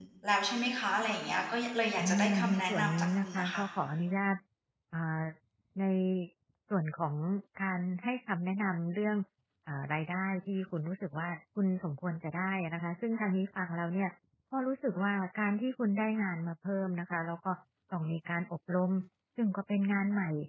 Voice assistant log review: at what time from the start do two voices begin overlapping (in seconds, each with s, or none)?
2.0 s